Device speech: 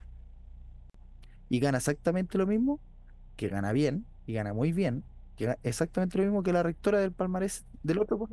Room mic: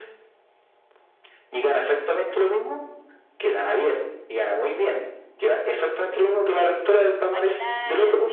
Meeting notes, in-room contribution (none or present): present